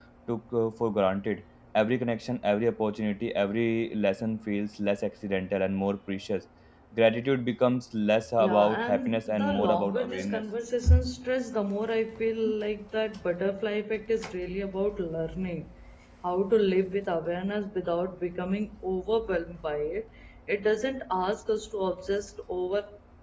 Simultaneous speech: Yes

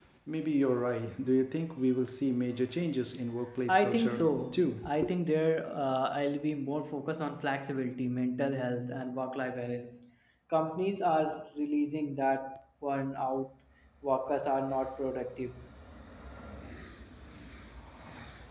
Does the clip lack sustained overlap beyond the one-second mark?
No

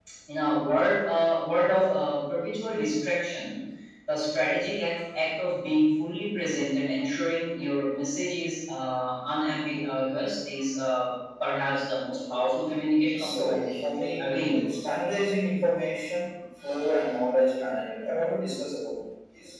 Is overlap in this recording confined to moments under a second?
No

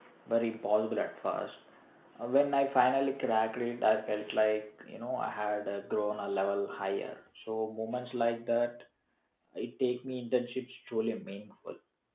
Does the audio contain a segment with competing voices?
No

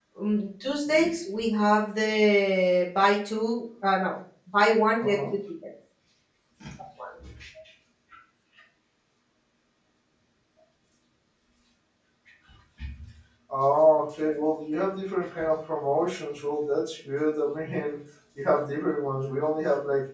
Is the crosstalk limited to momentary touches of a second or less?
Yes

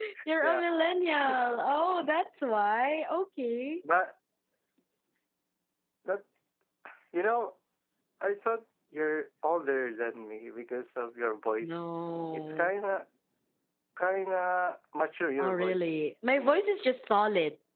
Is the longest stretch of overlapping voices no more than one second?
Yes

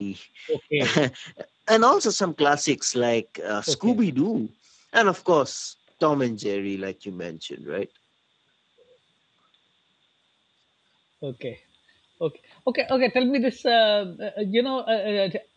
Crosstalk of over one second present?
No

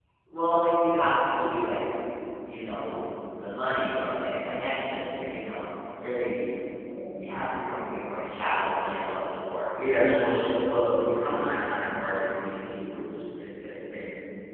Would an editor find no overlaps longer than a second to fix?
Yes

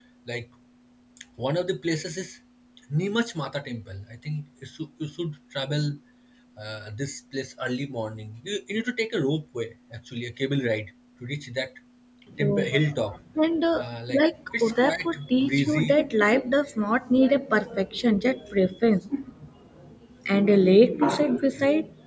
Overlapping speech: Yes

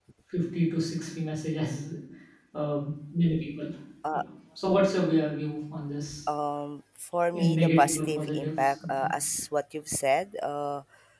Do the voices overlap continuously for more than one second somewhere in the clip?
Yes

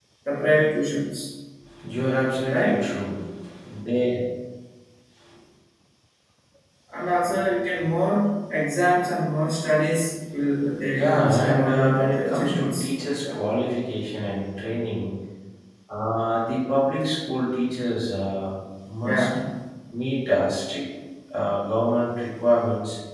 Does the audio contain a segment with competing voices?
Yes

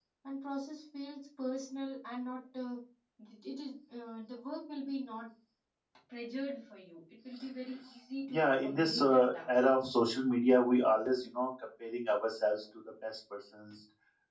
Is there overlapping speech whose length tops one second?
Yes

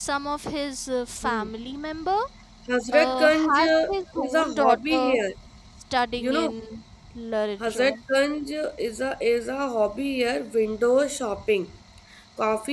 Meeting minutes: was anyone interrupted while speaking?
Yes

